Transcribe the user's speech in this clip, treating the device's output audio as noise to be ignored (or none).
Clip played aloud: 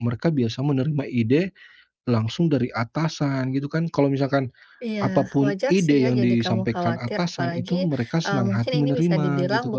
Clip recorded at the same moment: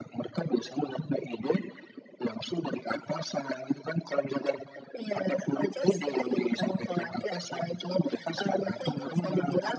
none